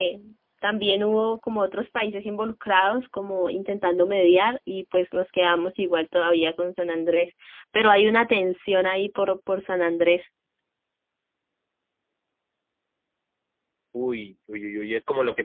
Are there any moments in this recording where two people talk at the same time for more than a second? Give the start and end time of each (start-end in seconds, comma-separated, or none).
none